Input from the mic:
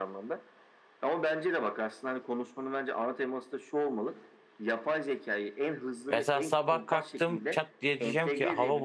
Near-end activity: present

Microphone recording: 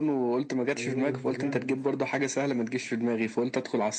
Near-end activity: present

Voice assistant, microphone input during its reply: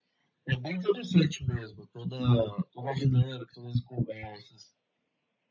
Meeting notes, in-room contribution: none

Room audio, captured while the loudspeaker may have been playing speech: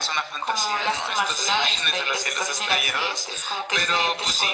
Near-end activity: none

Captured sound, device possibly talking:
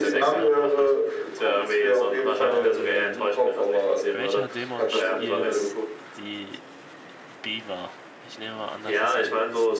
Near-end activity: present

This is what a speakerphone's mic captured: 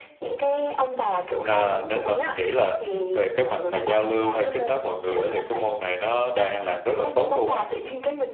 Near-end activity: present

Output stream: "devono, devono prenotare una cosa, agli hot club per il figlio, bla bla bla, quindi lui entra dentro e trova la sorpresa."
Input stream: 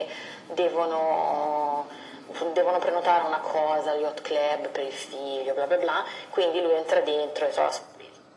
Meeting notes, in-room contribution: none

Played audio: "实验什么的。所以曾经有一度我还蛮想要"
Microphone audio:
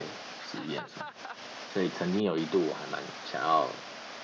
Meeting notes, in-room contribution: none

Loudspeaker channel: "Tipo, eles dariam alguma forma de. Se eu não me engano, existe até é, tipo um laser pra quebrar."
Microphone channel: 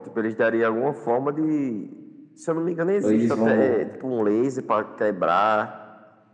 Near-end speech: present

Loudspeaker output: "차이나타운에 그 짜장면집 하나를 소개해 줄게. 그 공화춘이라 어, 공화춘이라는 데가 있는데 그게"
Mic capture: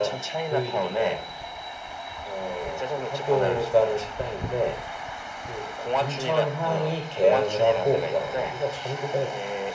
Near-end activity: present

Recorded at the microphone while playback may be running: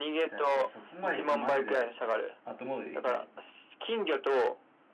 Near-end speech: present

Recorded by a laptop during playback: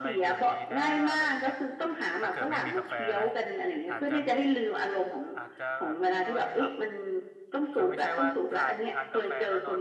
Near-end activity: present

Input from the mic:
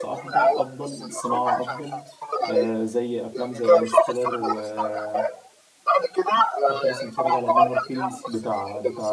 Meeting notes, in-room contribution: present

